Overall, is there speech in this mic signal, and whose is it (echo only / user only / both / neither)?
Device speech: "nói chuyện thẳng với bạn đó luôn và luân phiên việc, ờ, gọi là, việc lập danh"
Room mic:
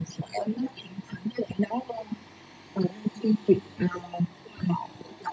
echo only